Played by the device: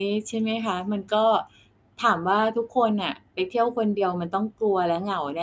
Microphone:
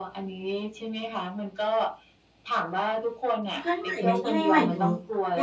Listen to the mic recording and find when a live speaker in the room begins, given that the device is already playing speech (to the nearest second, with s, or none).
4 s